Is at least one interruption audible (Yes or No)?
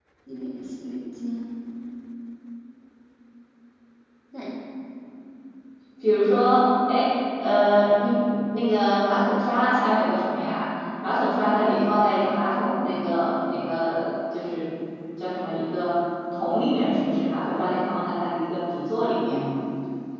No